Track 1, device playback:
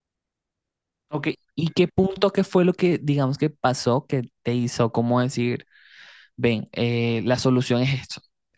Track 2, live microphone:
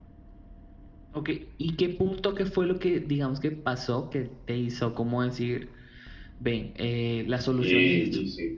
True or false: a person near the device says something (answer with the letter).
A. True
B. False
A